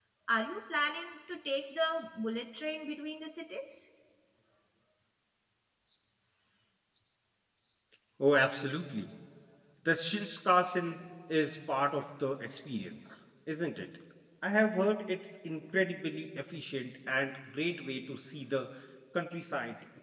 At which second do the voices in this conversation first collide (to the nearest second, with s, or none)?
none